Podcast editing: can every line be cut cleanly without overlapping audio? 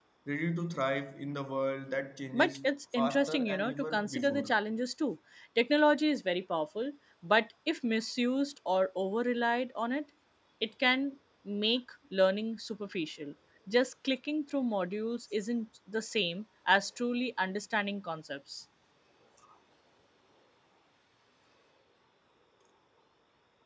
No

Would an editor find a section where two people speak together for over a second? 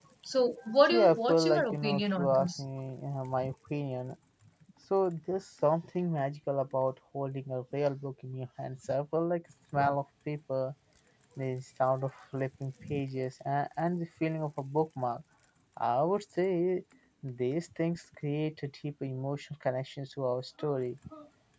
Yes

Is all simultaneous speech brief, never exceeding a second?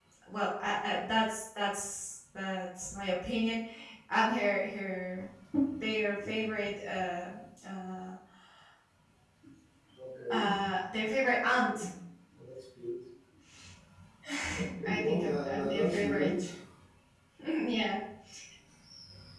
No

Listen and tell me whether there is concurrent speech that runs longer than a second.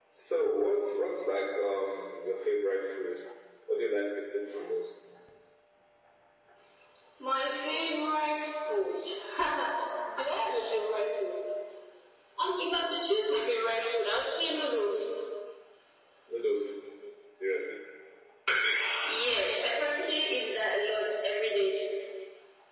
No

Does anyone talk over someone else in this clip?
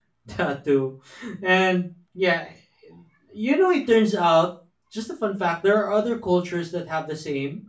No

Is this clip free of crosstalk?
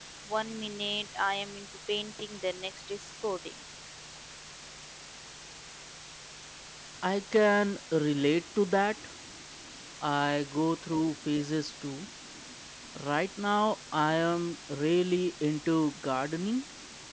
Yes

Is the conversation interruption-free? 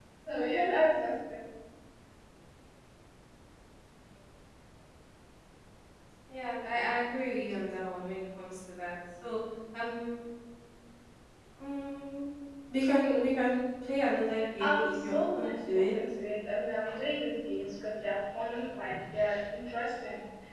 No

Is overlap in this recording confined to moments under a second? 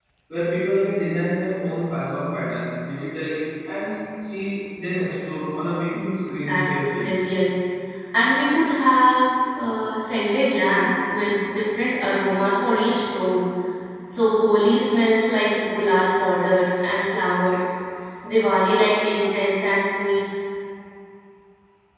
No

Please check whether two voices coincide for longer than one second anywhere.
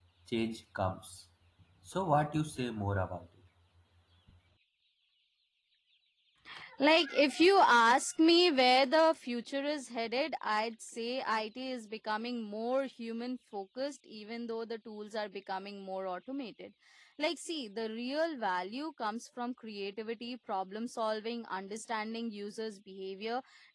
No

